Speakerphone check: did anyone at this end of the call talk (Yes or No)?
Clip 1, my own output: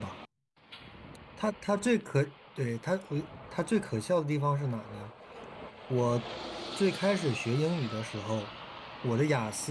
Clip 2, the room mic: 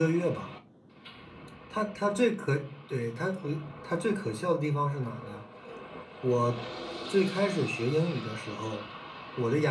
No